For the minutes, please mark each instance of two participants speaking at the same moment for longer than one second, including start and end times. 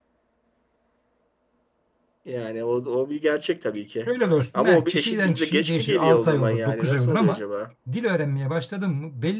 4.5-7.4

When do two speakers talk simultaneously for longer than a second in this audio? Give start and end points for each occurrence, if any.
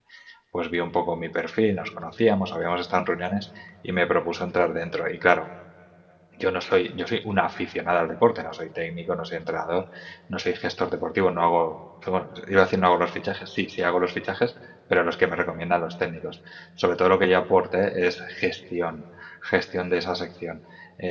none

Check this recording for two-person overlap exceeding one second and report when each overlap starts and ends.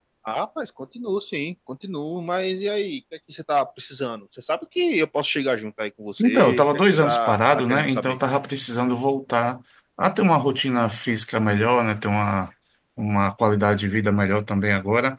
6.2-8.2

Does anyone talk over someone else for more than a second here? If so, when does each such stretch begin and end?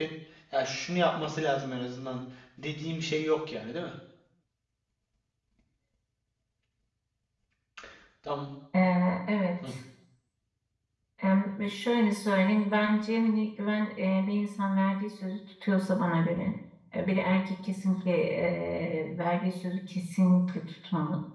none

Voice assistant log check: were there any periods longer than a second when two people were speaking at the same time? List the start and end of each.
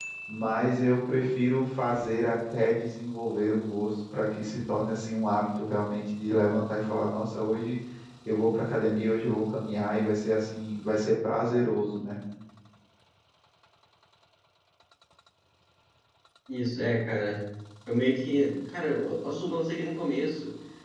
none

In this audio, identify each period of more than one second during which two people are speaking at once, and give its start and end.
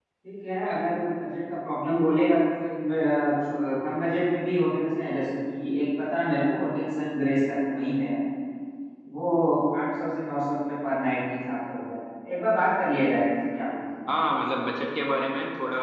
none

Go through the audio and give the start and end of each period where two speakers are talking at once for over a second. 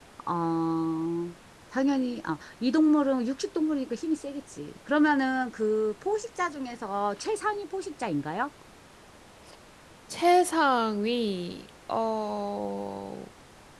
none

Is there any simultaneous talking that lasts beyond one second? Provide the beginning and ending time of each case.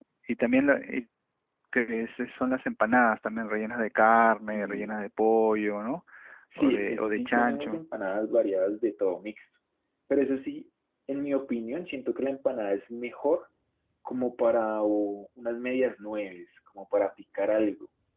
6.6-7.8

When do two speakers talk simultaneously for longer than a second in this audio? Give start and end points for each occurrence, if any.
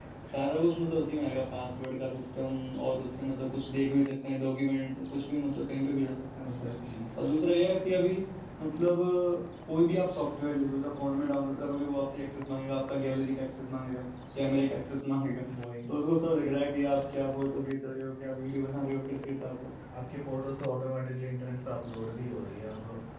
none

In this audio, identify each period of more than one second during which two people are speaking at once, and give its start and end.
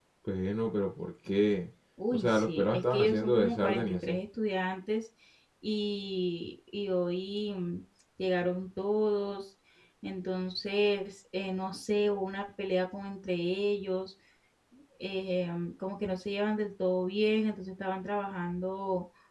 2.1-4.2

